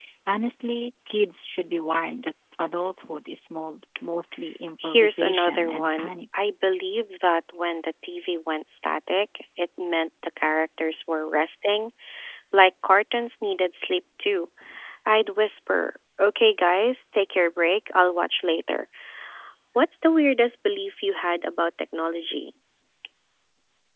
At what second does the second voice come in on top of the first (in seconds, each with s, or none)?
4.8 s